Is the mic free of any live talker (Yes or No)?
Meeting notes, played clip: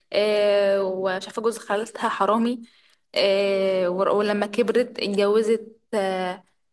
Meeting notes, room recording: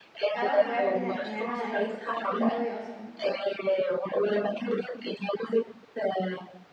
No